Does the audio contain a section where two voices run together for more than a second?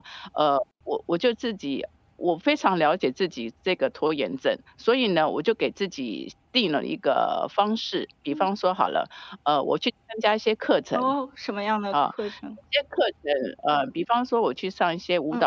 No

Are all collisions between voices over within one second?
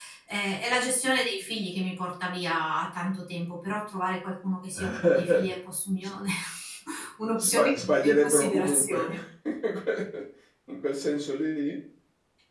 No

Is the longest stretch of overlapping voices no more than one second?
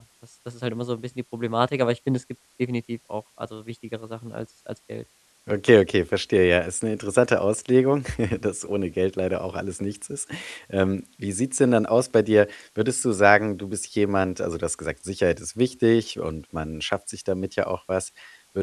Yes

